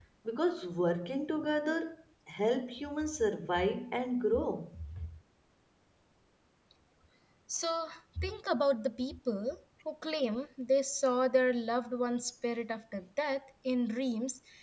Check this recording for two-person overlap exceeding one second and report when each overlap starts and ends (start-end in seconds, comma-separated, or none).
none